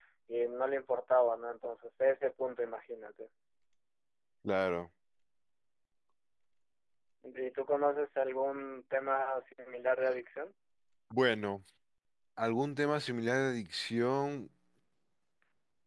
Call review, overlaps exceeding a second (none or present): none